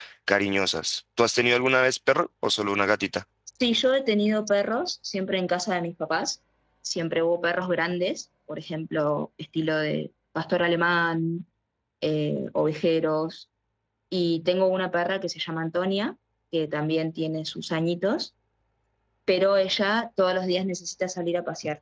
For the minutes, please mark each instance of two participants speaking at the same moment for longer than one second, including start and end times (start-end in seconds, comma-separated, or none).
none